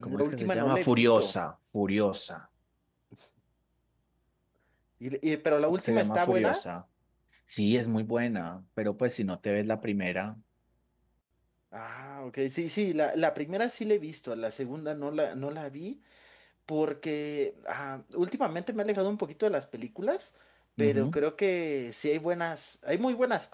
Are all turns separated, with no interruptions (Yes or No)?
No